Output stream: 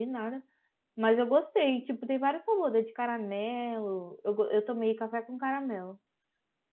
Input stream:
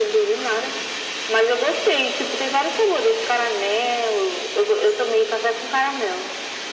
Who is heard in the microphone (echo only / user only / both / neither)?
echo only